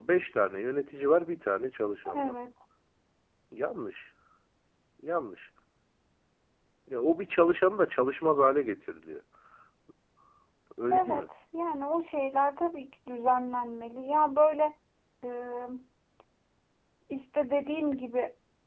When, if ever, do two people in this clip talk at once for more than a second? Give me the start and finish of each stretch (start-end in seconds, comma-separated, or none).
none